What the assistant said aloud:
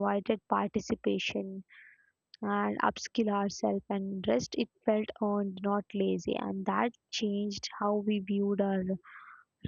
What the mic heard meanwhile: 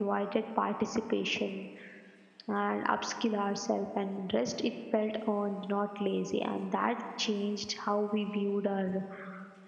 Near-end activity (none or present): none